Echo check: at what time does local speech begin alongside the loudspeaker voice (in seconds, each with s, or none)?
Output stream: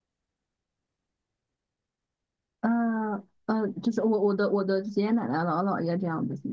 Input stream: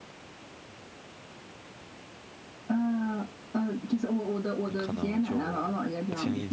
4.7 s